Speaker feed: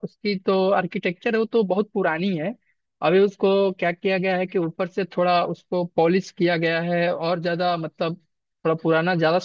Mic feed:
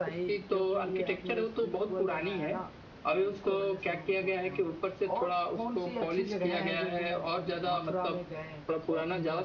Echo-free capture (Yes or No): No